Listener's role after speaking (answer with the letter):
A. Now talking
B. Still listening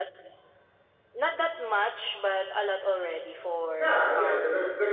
A